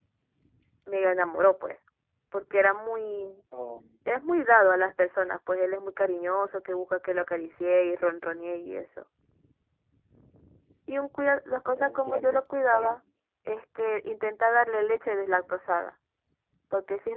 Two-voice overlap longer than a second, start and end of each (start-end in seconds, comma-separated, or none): 11.8-13.0